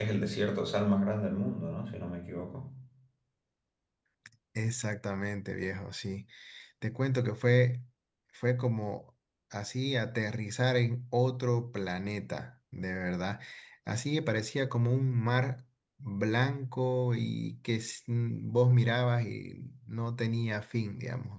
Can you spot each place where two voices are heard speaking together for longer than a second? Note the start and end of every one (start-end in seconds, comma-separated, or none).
none